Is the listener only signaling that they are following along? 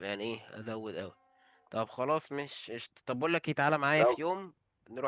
Yes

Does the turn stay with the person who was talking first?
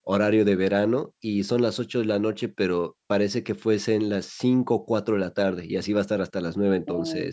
No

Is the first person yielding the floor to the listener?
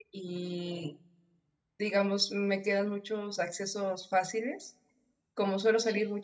No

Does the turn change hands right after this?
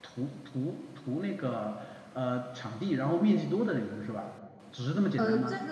Yes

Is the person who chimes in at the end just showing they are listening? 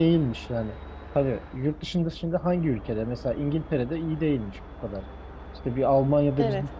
Yes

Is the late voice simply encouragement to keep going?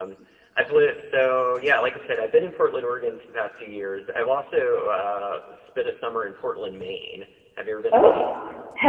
No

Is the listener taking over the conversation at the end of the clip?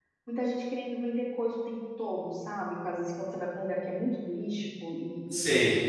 No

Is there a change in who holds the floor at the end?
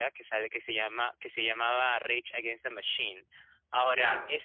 No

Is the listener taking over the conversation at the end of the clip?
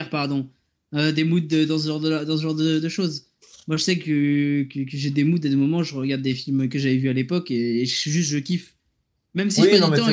Yes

